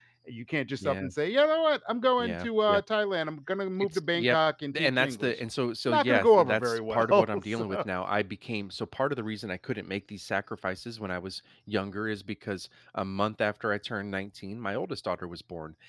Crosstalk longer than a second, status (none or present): present